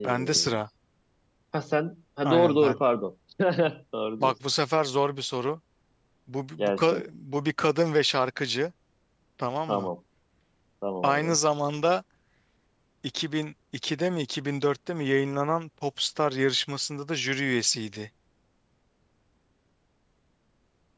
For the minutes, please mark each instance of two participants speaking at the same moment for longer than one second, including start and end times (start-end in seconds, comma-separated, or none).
none